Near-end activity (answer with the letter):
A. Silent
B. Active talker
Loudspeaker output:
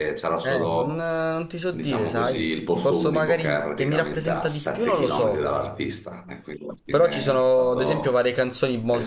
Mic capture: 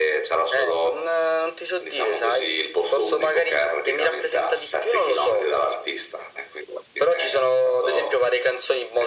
A